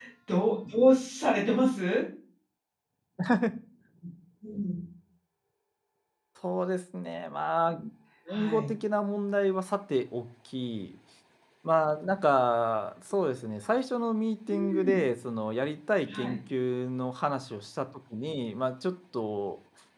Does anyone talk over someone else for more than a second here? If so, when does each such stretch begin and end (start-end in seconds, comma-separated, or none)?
none